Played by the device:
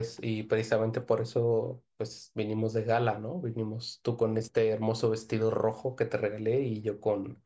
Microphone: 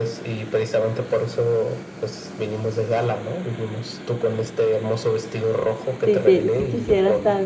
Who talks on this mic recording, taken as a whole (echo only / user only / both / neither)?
both